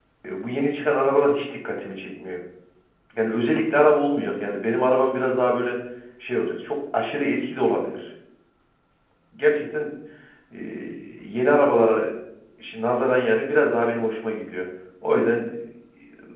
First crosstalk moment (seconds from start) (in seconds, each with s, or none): none